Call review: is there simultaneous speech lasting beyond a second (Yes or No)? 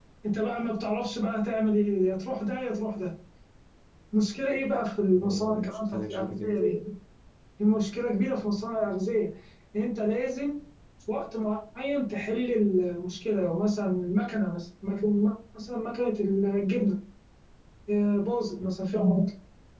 Yes